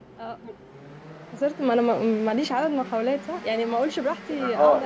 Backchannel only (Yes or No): No